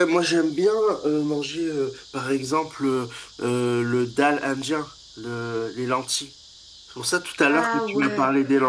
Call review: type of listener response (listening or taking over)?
listening